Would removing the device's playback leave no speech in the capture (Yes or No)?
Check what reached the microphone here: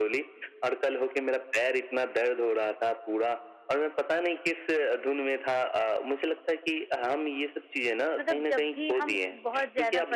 No